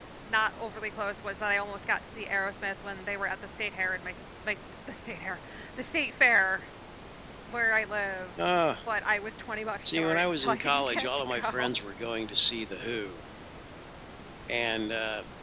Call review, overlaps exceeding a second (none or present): present